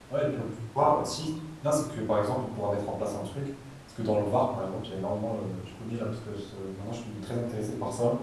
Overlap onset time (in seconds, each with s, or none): none